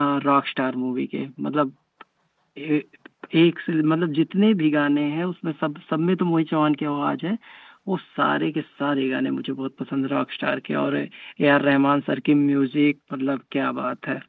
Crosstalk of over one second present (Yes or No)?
No